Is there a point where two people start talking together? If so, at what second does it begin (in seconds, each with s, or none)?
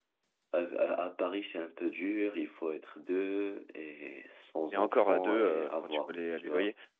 4.7 s